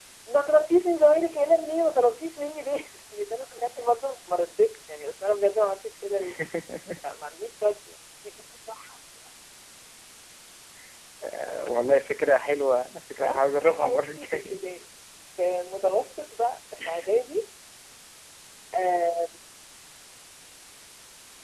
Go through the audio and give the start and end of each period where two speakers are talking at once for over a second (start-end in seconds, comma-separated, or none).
13.2-14.6